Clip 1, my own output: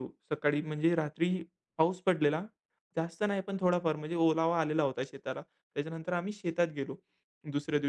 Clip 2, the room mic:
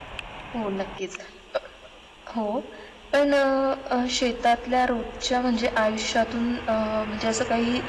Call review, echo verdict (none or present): none